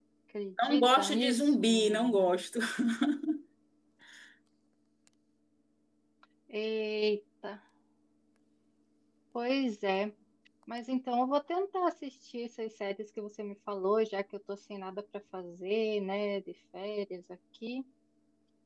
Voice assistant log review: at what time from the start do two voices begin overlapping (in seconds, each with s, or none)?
0.6 s